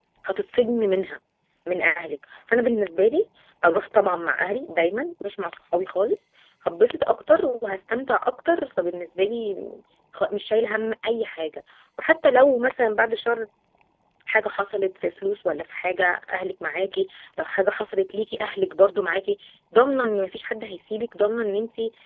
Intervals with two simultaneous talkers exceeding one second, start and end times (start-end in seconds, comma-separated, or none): none